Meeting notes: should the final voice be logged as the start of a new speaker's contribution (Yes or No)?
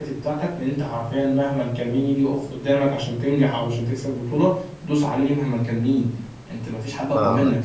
Yes